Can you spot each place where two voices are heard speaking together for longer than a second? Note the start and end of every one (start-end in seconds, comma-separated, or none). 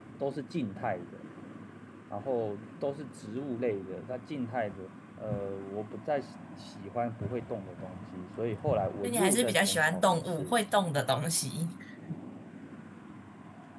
9.0-10.5